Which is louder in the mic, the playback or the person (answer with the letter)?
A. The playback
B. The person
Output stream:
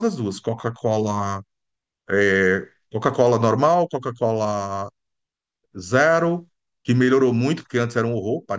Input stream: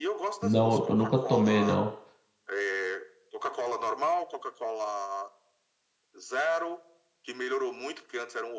B